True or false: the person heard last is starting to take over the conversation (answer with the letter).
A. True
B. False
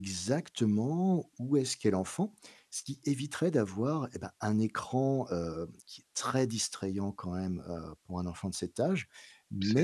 B